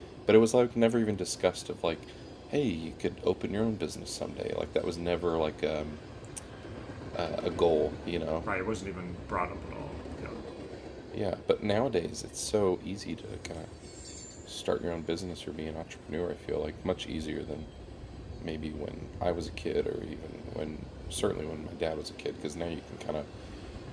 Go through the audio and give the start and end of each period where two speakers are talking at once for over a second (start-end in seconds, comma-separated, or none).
none